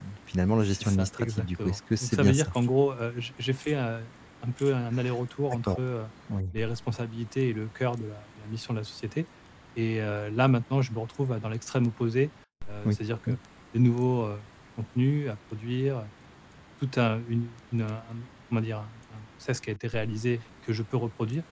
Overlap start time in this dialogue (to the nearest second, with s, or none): 1 s